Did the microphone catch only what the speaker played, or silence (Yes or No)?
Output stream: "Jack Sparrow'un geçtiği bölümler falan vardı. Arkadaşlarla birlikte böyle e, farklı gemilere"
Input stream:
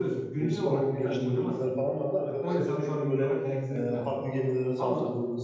No